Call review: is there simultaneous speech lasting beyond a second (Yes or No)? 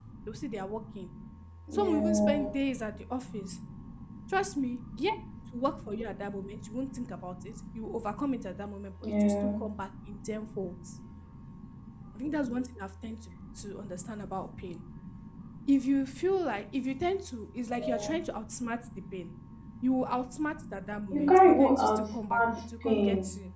Yes